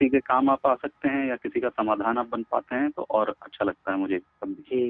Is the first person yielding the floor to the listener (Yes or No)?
Yes